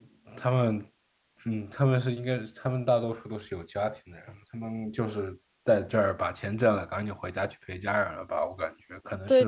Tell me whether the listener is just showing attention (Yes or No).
No